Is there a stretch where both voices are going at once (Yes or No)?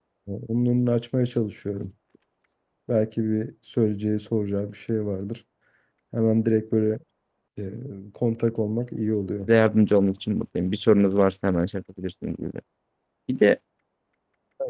No